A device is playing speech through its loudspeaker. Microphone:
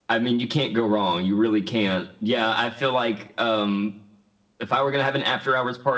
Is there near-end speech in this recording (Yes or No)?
No